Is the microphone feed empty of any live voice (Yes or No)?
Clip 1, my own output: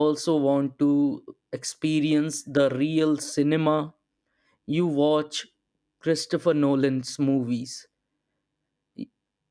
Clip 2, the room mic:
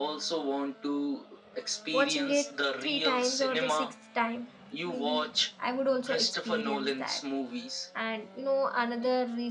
No